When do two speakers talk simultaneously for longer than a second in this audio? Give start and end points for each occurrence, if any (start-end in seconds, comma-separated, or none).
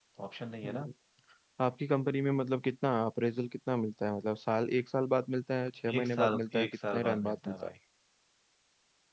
6.0-7.7